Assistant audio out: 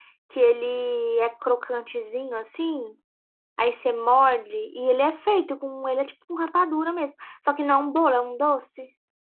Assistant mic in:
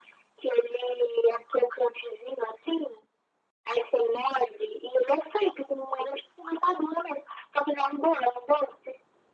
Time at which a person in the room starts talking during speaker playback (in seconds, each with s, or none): none